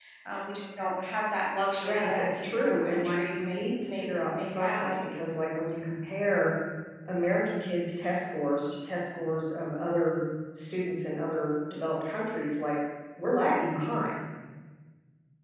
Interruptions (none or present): present